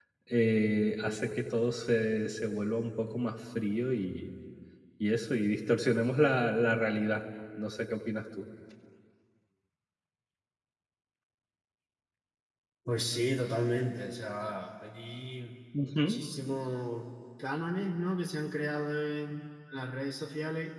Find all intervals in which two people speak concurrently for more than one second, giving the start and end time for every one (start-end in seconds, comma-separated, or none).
none